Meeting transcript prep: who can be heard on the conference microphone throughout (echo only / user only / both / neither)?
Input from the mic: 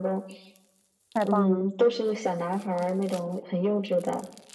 both